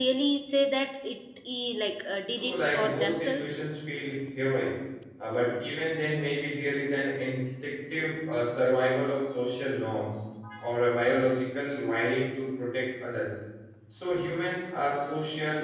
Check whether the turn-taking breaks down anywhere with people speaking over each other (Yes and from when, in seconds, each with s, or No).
Yes, from 2.3 s